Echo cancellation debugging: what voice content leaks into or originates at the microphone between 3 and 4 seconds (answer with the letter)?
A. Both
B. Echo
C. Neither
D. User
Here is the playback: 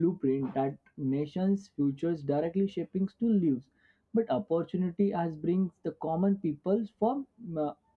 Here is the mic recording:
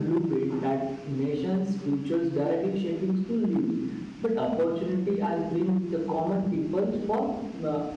B